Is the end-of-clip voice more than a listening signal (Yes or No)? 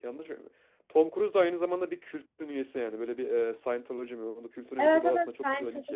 Yes